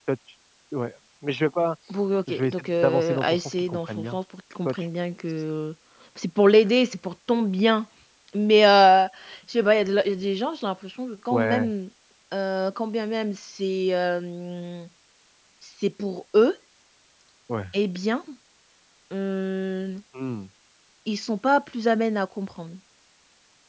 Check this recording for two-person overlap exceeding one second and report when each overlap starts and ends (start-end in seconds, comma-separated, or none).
2.3-4.2